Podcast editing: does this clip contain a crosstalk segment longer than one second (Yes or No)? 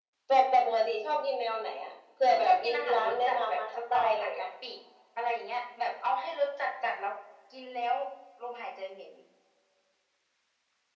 Yes